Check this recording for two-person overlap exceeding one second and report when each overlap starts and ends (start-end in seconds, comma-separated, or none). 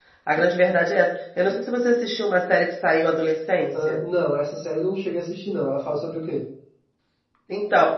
none